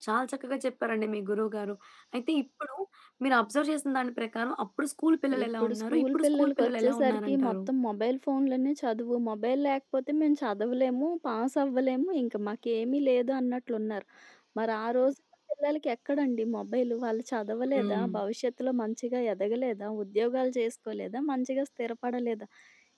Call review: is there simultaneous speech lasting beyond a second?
Yes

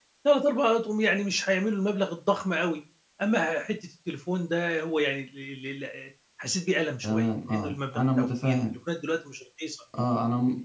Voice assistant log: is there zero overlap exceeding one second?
No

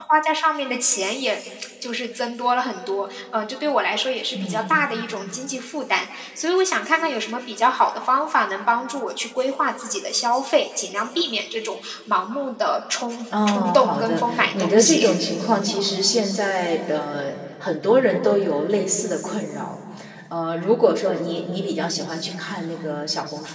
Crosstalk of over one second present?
Yes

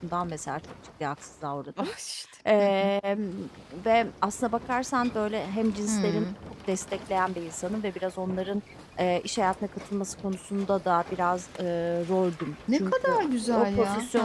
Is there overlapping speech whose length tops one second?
Yes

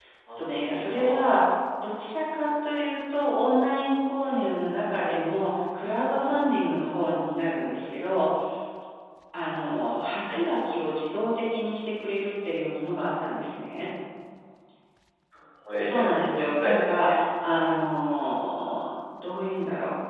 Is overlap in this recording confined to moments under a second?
No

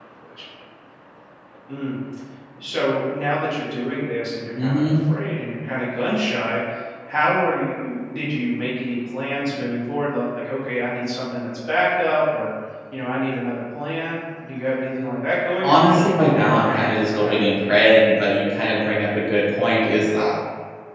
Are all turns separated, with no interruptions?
No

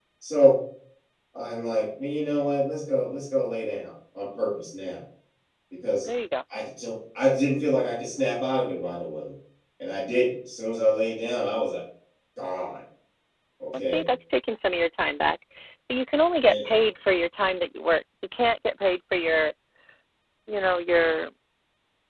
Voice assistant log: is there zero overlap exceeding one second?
Yes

